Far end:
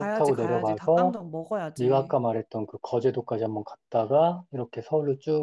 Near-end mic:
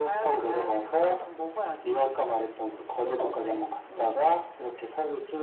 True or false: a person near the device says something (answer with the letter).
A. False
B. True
B